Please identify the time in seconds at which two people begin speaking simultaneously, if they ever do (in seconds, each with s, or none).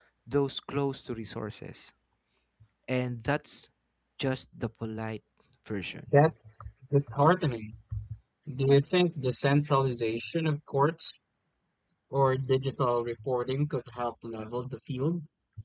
none